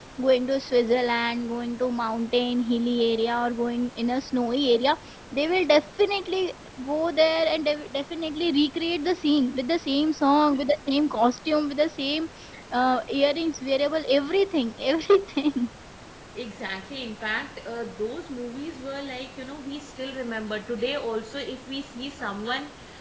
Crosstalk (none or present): none